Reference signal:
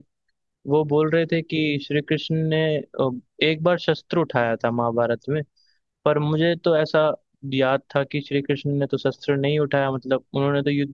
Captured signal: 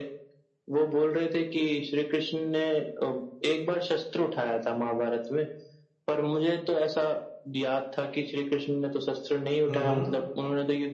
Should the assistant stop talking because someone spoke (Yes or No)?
Yes